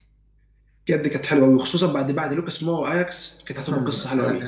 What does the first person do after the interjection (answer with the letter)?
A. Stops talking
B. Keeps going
A